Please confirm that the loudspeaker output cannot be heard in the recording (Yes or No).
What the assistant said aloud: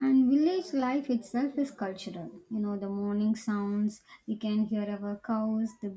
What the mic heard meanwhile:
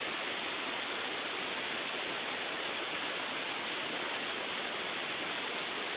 Yes